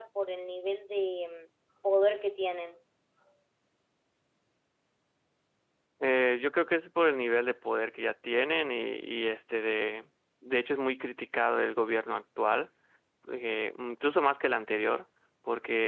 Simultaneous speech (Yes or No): No